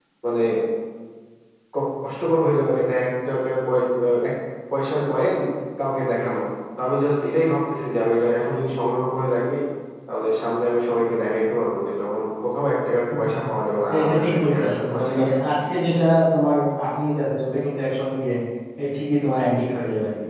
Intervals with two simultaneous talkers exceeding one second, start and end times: 13.9-15.3

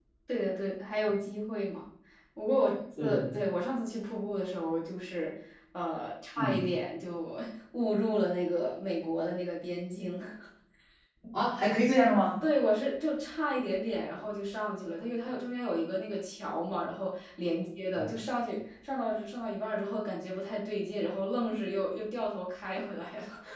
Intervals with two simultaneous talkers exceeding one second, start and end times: none

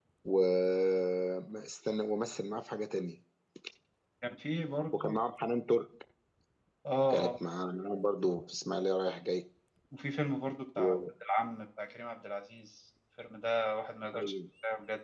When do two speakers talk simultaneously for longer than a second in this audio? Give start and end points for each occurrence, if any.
none

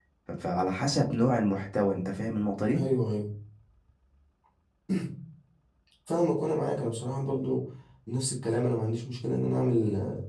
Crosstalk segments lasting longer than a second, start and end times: none

